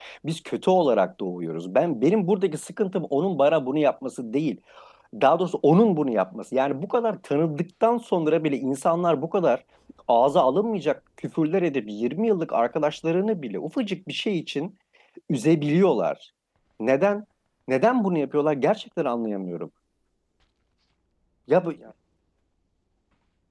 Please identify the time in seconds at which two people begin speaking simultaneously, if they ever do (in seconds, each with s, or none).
none